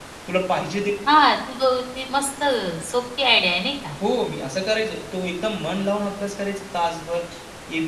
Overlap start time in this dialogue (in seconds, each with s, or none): none